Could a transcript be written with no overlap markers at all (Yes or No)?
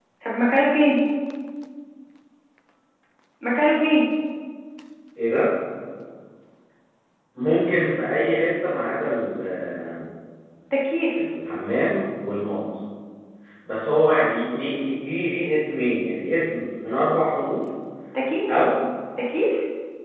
Yes